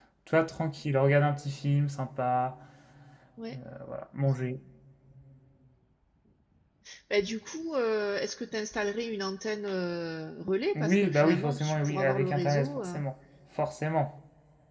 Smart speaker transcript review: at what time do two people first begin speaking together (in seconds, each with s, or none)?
10.8 s